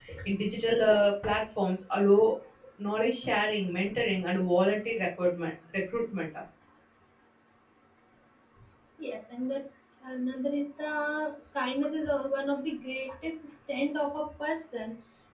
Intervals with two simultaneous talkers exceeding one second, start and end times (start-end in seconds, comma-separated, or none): none